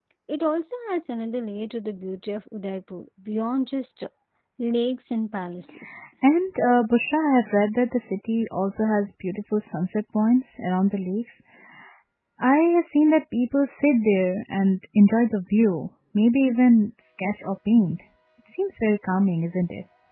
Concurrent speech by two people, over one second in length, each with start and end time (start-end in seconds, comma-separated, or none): none